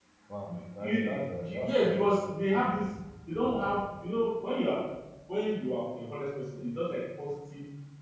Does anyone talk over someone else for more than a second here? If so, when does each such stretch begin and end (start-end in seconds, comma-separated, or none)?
0.8-2.6